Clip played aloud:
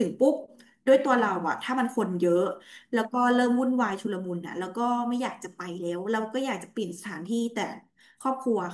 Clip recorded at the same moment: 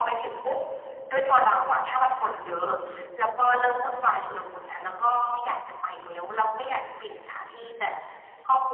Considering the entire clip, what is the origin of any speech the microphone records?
echo only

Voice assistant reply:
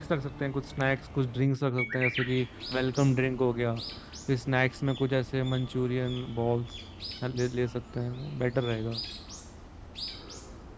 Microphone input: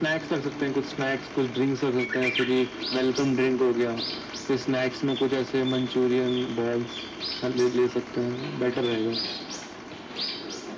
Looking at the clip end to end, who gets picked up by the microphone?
echo only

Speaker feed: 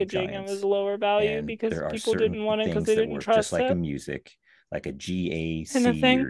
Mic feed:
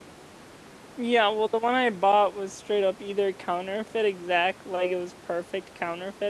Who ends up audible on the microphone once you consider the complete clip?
user only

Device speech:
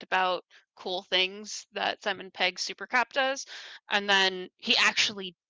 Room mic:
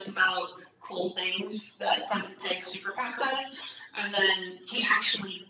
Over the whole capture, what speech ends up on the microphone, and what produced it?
echo only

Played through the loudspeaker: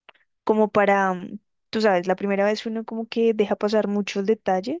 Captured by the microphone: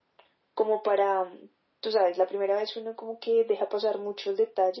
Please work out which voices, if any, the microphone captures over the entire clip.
echo only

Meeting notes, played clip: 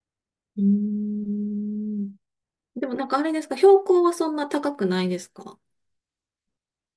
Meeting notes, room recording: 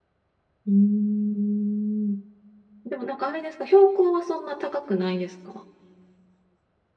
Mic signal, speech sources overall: echo only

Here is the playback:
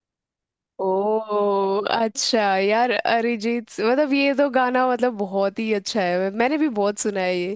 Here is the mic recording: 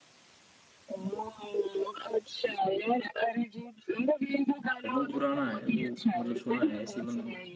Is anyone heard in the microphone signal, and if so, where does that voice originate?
both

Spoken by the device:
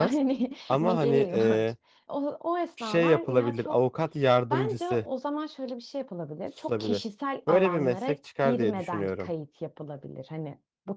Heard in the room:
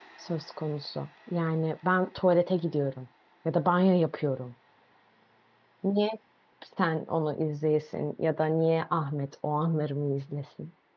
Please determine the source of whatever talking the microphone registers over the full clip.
user only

